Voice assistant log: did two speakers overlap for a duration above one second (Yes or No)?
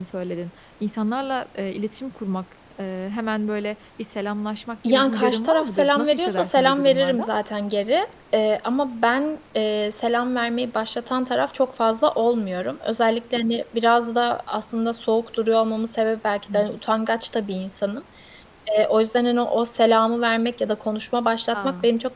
Yes